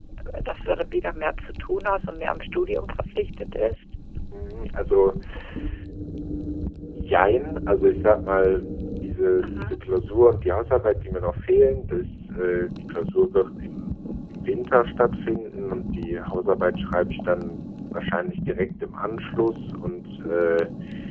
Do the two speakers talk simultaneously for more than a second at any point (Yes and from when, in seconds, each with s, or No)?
No